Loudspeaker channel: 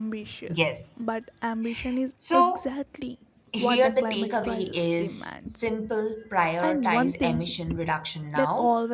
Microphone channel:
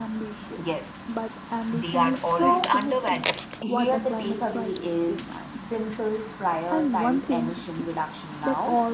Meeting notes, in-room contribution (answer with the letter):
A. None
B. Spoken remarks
B